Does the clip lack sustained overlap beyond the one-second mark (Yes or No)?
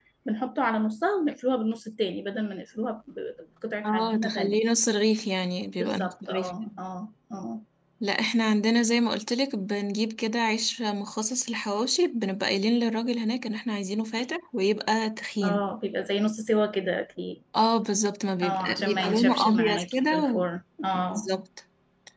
No